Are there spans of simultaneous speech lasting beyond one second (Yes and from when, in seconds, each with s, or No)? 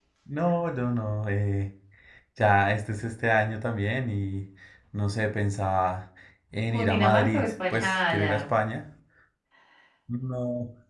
Yes, from 6.7 s